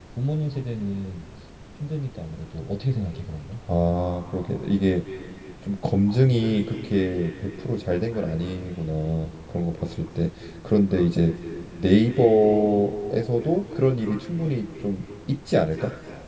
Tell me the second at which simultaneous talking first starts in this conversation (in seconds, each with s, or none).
none